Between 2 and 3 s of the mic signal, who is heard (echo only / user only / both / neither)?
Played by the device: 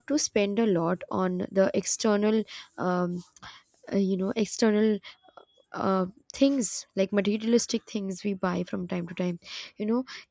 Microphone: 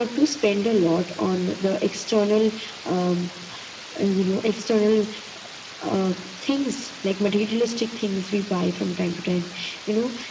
echo only